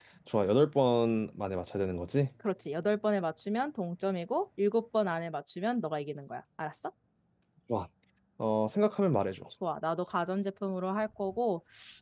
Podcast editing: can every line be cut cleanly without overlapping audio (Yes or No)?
Yes